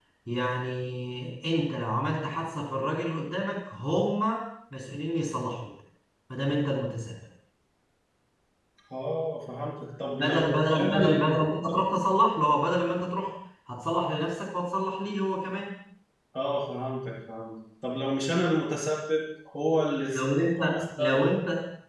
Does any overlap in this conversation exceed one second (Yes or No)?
Yes